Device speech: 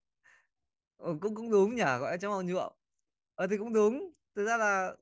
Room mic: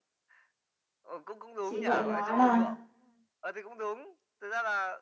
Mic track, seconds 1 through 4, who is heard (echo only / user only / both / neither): both